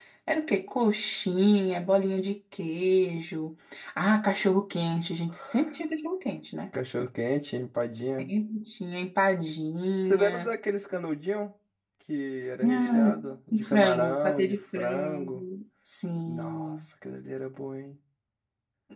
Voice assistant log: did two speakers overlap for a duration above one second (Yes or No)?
Yes